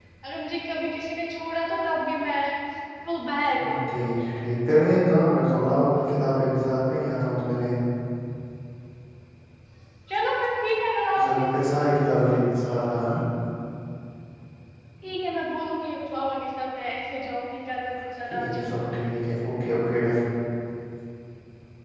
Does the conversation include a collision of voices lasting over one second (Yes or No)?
No